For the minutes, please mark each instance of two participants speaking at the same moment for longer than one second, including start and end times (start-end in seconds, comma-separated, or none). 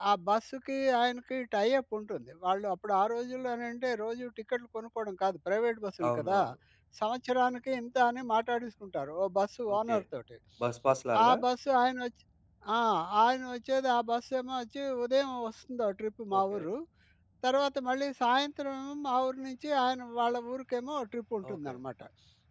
none